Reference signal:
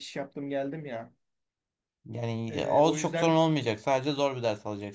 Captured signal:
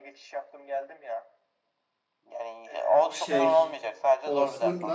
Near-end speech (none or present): present